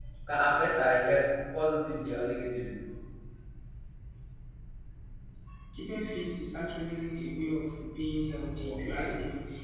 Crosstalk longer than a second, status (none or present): none